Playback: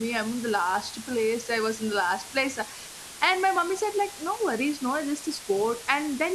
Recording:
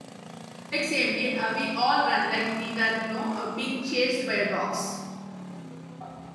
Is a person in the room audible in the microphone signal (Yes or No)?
Yes